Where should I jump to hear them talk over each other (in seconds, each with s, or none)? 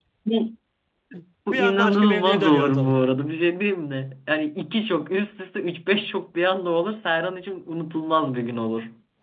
1.5 s